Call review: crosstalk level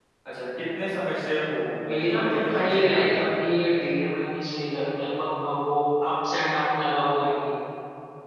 present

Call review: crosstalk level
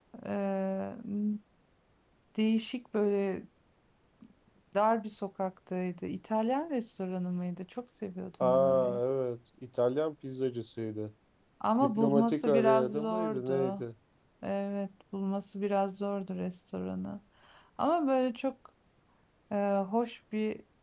present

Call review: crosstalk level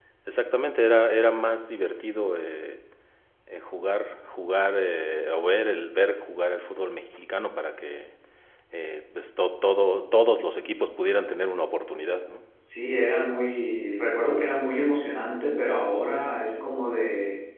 none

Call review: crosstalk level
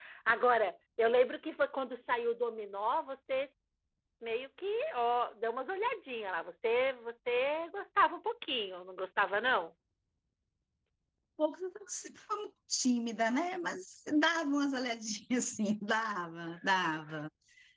none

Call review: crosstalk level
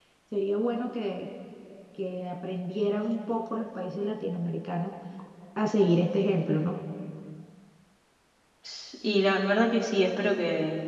none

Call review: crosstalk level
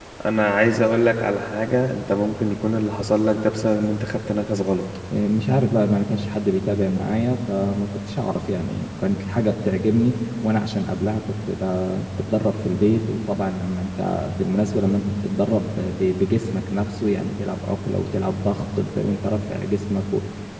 none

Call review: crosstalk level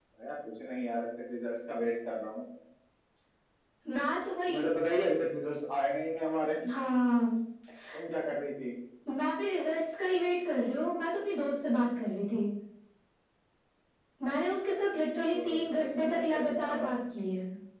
present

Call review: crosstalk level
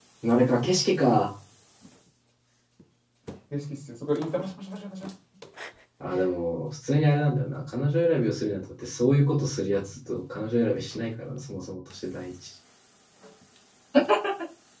none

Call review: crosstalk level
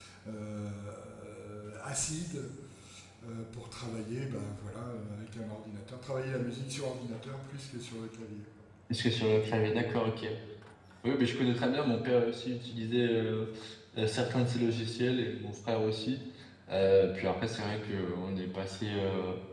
none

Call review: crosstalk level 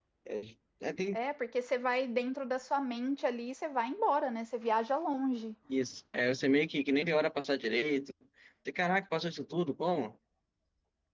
none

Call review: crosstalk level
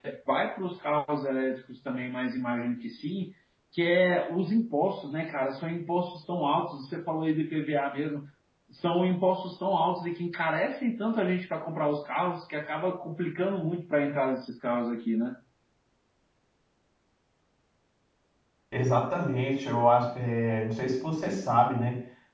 none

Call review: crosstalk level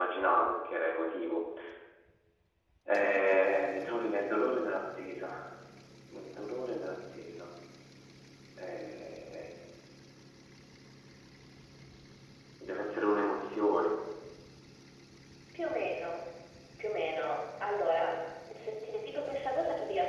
none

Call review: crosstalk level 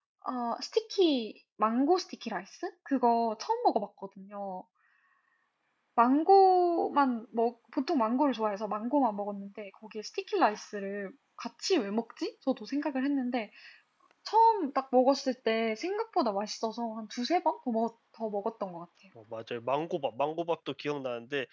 none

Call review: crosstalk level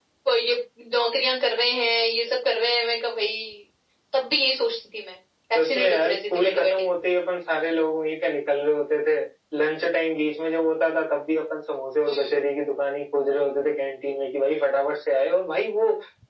present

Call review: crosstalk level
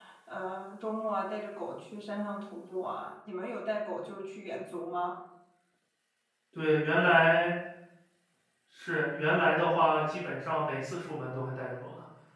none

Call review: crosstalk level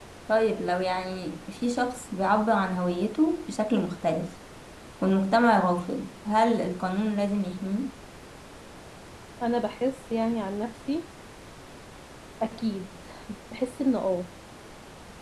none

